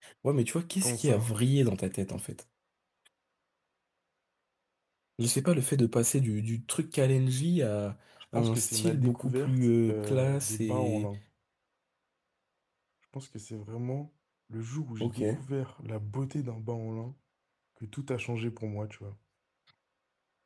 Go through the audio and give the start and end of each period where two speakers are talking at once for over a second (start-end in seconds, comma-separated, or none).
8.3-11.1